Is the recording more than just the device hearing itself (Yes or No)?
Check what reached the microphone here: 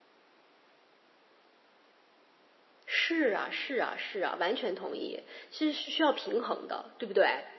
Yes